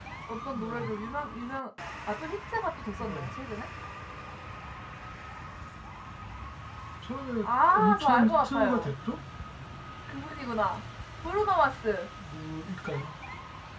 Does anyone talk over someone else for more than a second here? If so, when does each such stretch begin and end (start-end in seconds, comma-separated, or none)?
7.4-8.9